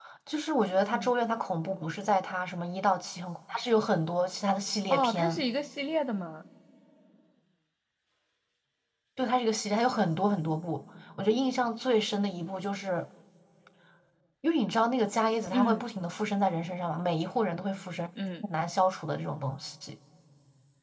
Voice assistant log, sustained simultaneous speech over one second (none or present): none